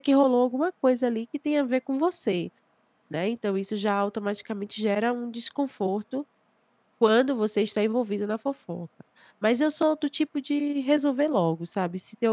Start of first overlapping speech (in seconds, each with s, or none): none